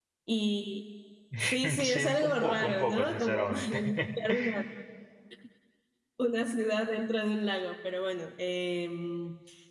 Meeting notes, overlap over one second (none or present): present